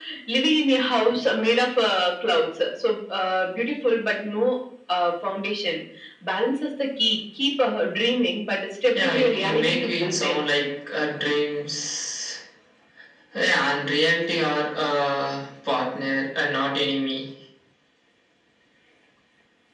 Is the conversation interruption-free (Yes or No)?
No